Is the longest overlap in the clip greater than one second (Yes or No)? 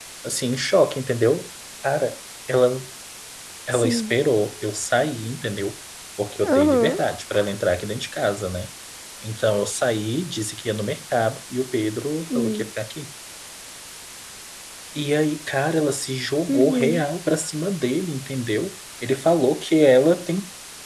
No